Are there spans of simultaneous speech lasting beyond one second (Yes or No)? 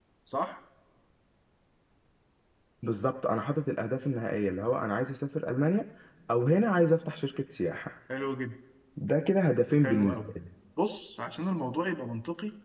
No